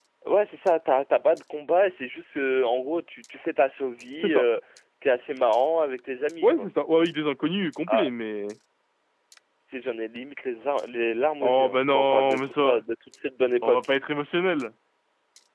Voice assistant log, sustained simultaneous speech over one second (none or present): present